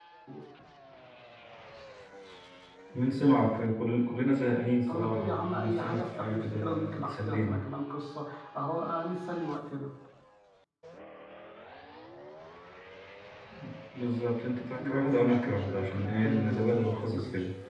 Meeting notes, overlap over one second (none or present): present